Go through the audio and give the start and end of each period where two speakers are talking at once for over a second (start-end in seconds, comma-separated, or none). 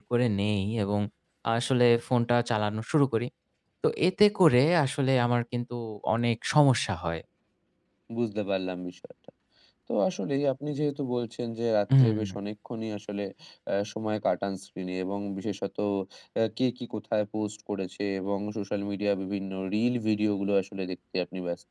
none